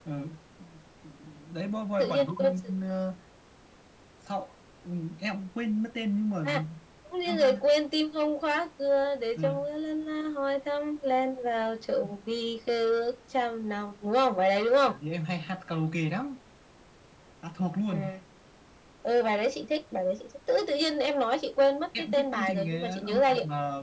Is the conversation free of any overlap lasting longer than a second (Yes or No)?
No